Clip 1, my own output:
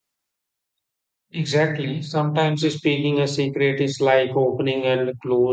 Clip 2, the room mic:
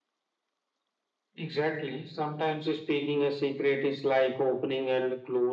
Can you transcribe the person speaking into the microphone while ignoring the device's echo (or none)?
none